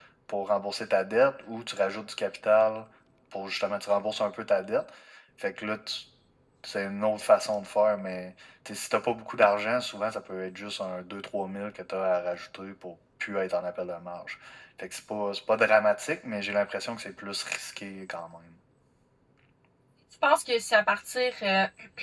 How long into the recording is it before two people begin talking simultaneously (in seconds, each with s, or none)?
none